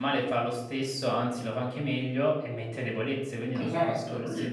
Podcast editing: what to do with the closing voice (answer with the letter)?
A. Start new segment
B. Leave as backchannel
A